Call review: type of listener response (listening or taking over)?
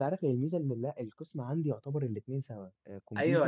taking over